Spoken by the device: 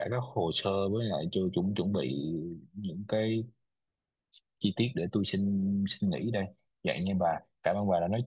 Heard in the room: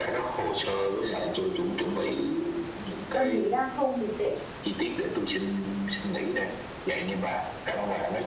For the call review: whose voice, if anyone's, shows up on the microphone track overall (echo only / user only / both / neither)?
both